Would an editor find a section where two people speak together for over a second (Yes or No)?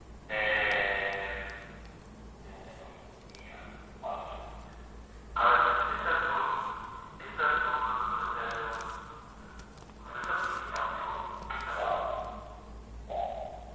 No